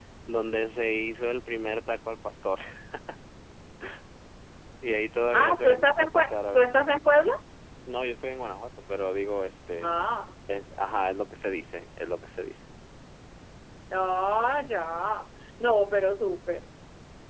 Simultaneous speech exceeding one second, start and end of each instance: 5.3-6.7

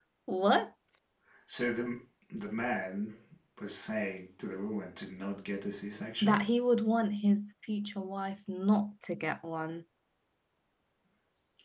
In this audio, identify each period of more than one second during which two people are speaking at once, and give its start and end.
none

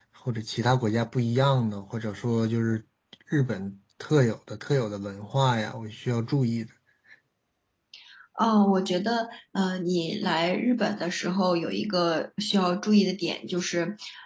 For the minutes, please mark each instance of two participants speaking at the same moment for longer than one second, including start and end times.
none

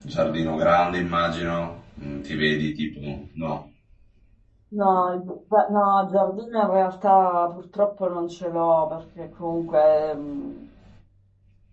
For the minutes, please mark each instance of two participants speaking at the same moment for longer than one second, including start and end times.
none

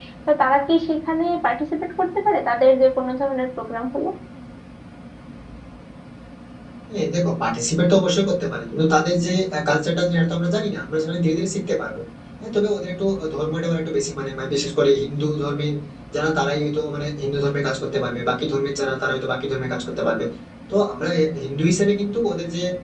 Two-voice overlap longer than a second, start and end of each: none

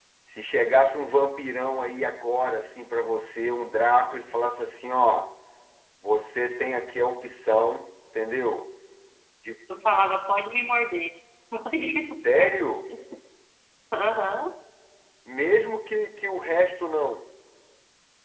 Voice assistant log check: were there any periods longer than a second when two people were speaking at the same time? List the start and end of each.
none

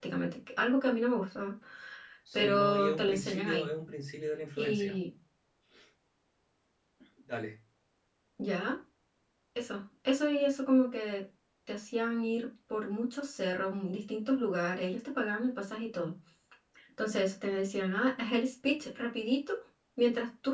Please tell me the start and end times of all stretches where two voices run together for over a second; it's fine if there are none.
2.3-3.7

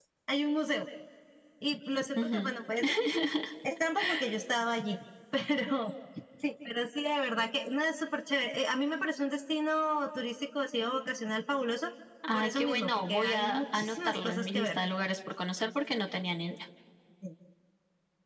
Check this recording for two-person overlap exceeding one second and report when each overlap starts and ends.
12.3-14.8

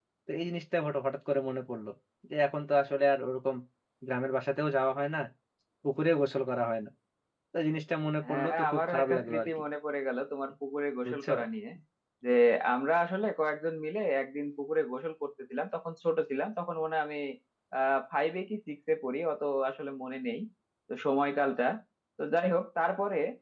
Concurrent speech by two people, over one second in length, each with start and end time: 8.2-9.5

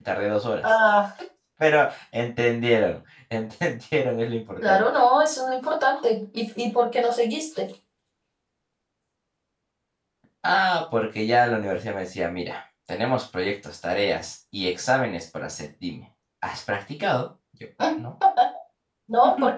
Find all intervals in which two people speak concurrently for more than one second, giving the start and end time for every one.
none

